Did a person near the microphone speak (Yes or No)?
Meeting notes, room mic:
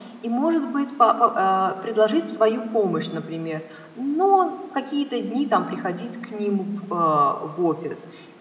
No